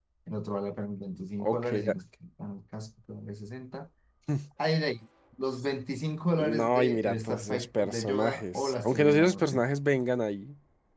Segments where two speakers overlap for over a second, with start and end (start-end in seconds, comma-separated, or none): 6.3-9.6